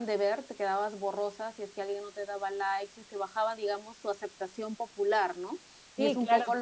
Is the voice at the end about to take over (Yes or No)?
No